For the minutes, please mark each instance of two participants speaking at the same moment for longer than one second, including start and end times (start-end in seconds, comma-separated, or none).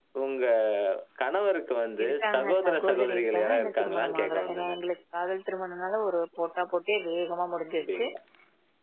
2.0-4.8